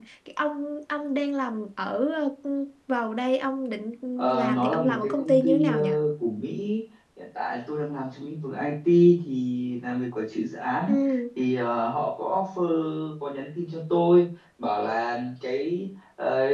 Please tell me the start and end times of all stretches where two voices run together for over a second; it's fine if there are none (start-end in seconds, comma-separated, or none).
4.4-5.9